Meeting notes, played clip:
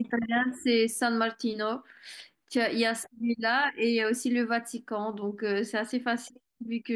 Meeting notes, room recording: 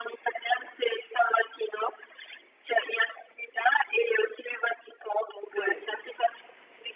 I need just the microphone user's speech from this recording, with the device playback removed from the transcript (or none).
ouais.